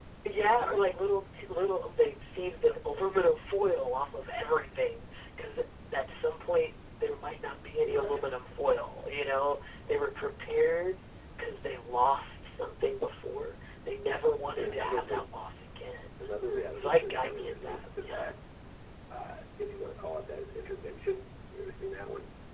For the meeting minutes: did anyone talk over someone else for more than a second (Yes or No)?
Yes